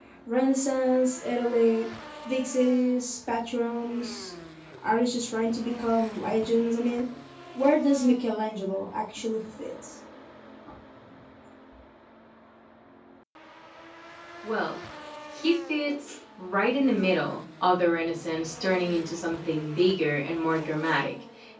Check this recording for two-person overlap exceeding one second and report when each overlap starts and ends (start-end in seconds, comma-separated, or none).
none